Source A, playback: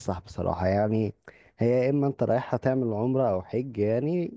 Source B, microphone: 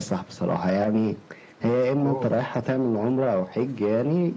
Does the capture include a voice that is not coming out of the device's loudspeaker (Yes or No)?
Yes